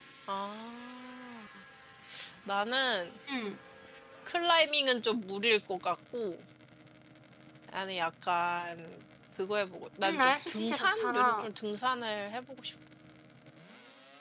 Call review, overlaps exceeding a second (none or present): present